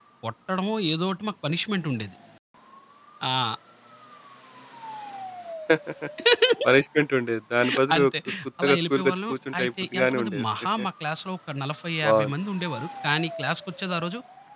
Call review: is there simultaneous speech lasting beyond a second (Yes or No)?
Yes